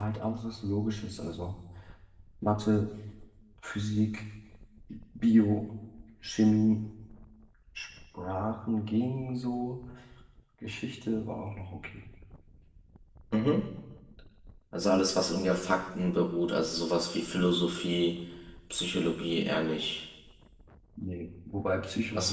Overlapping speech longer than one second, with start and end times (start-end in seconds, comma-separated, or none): none